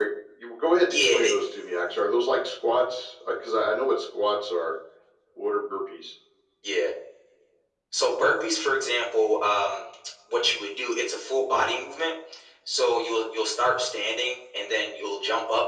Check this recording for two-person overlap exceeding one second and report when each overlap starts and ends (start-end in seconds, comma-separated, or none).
none